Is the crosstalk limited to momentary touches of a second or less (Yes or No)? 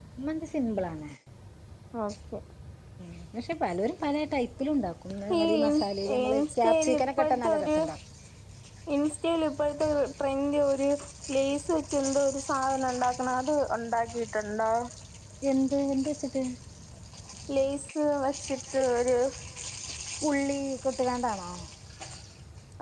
No